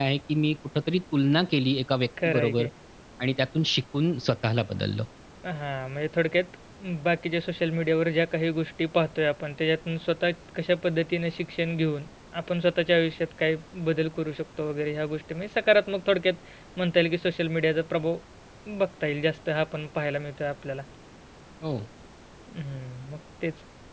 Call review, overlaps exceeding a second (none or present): none